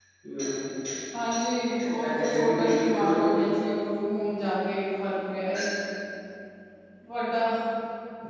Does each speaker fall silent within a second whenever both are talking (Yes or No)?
No